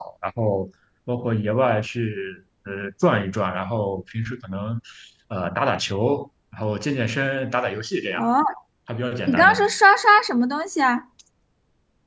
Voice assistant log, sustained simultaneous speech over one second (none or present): none